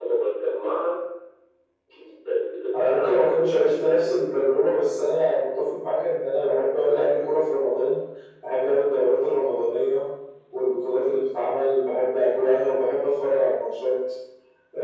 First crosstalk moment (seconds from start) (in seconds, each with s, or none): 2.7 s